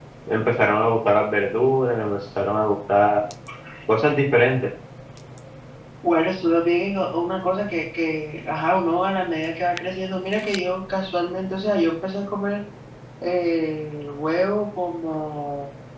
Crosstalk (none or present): none